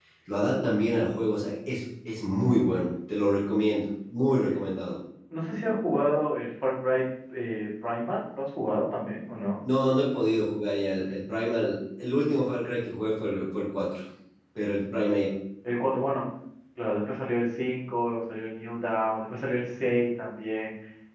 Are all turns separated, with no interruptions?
Yes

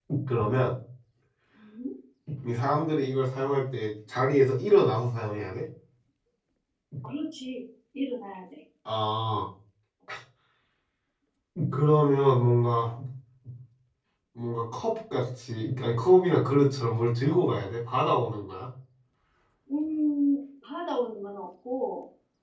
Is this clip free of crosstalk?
Yes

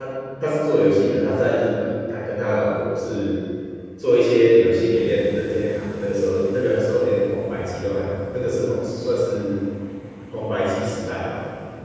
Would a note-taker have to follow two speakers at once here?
No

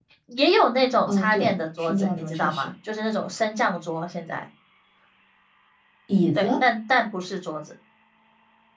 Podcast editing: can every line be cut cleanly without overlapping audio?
No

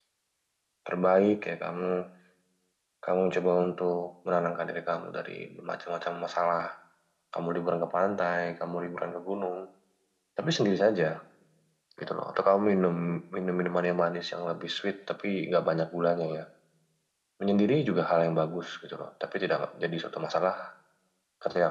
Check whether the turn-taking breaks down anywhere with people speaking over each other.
No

